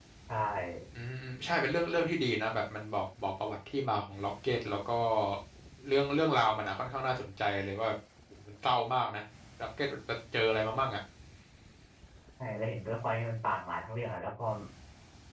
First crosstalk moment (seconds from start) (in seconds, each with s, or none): none